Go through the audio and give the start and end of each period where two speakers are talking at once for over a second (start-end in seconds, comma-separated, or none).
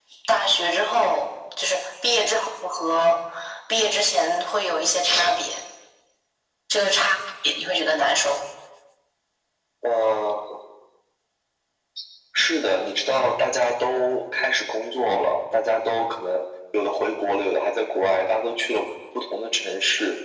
none